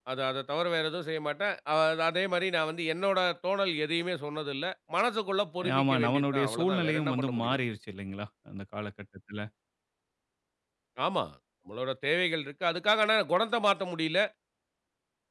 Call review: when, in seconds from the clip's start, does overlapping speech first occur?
5.6 s

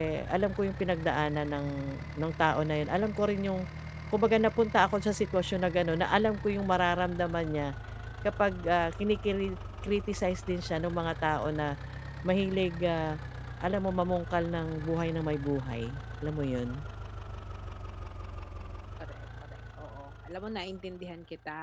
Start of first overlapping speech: none

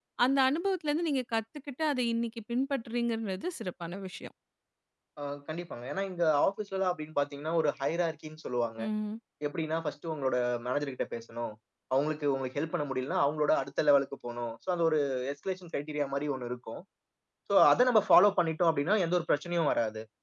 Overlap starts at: none

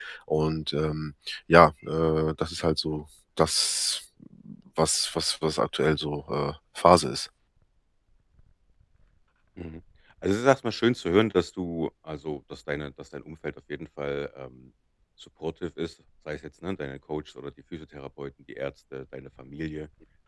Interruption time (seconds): none

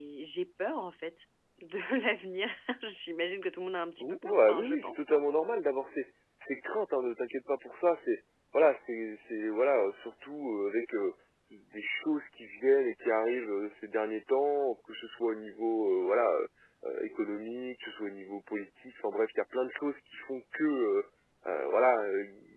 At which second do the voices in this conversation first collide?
4.0 s

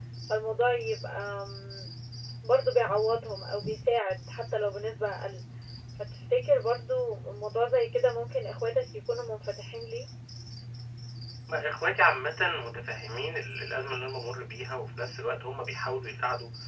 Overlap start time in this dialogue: none

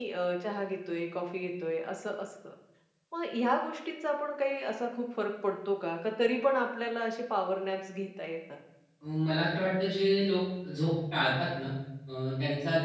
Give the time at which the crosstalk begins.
none

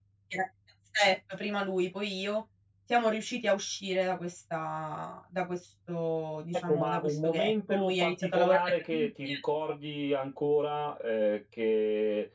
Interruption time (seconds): 6.7 s

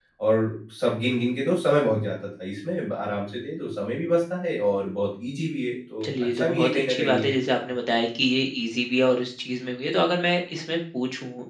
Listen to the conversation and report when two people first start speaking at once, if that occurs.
6.0 s

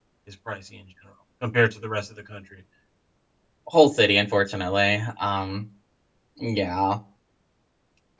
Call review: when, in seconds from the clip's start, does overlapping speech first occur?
none

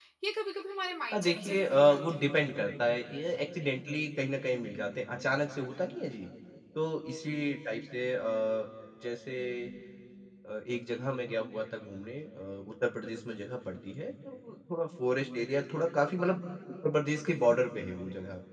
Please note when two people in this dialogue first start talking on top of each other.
1.1 s

